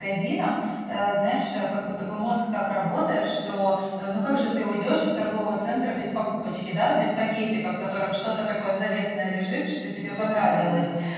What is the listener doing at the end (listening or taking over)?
listening